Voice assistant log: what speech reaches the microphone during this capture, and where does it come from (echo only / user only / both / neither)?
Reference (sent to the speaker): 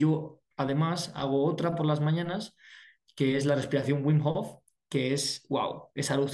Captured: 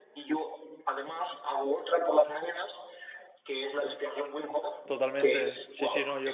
both